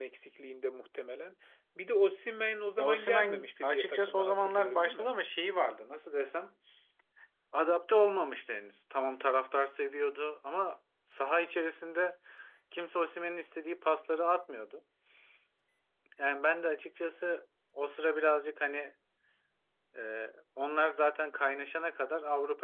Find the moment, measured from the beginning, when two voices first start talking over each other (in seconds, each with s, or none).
2.8 s